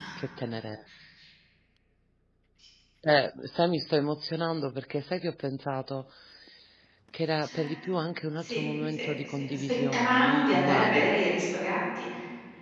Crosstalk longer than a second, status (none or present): present